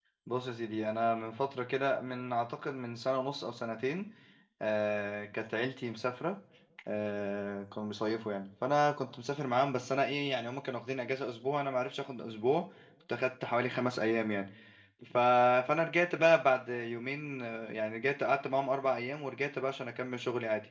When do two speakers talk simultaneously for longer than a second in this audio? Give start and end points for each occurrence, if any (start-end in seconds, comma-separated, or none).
none